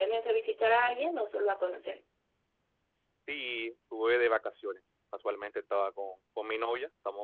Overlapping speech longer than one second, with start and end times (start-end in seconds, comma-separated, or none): none